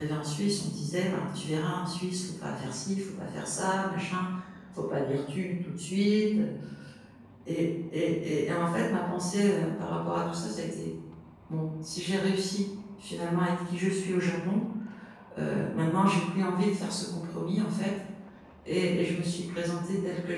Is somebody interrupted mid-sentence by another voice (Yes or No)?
No